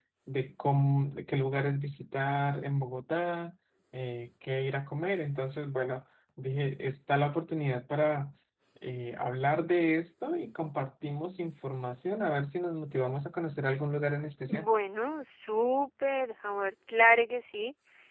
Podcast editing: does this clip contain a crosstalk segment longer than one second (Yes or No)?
No